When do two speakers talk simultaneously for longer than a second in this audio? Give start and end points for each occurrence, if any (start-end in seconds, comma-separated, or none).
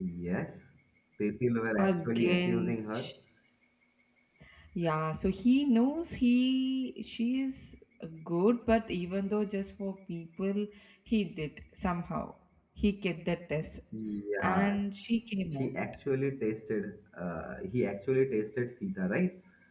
1.8-3.0